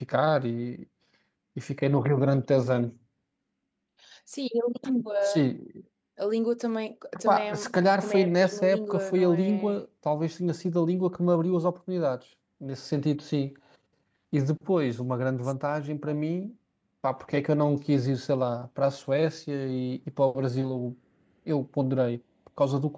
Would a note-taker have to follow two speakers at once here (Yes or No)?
Yes